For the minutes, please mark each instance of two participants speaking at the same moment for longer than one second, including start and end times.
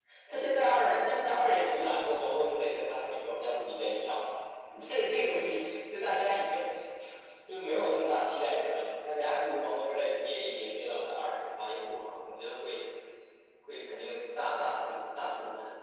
none

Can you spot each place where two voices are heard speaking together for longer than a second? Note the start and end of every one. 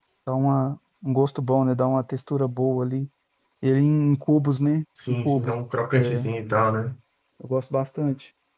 none

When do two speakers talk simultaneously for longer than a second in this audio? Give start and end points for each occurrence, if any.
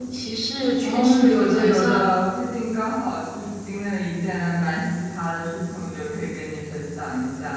0.8-2.1

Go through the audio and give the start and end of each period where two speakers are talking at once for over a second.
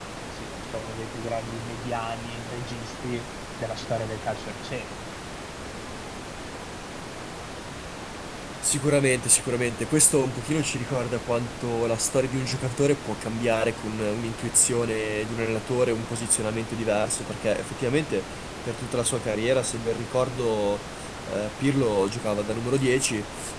none

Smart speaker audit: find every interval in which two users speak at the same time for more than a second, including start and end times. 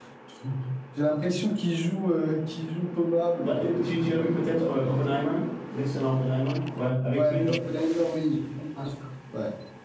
3.4-5.0

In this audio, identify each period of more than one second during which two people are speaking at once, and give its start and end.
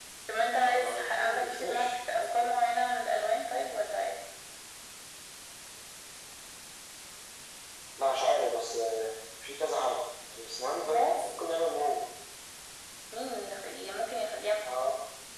0.6-2.5

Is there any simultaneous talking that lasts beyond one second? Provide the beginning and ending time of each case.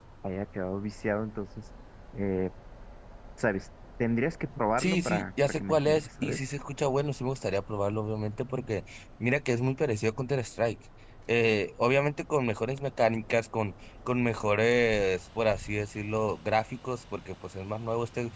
4.8-6.4

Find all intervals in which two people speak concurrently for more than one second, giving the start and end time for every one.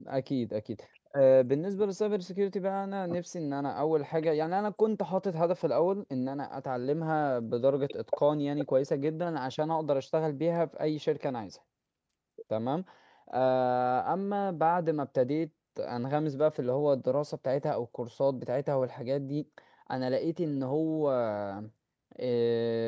none

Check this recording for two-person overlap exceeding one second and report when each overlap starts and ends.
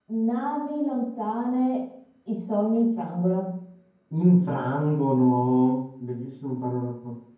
none

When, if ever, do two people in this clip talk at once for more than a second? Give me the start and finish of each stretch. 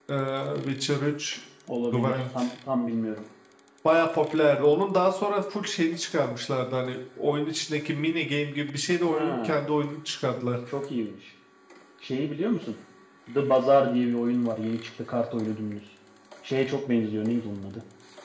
none

